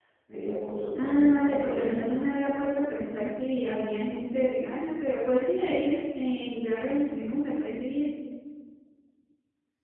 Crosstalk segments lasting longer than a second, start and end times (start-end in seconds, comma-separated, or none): 1.0-2.3